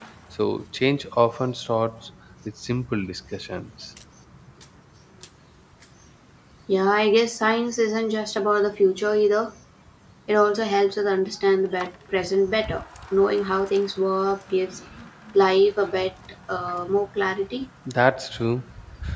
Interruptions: none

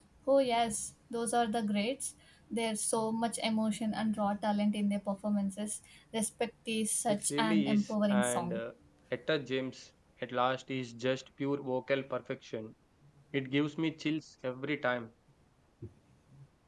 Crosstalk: present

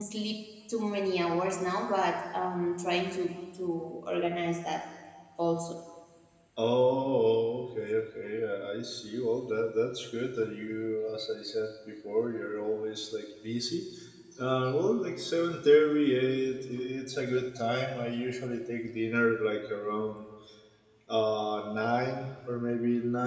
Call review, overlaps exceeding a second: none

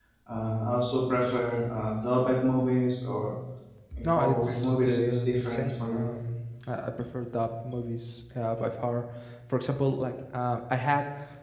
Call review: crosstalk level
present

